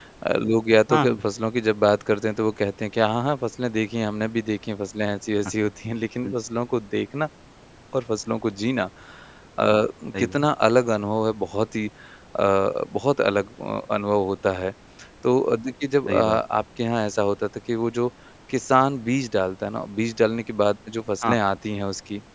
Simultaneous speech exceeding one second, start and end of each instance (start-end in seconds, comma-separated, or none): none